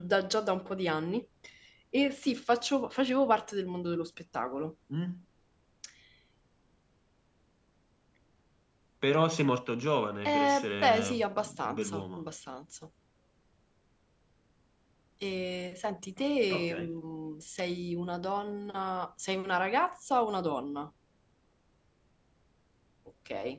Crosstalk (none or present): present